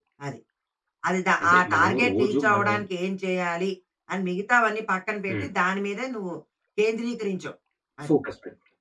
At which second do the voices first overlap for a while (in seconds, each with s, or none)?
1.4 s